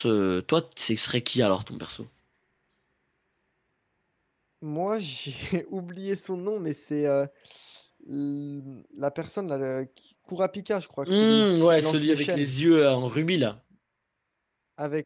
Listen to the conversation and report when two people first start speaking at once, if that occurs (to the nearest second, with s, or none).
11 s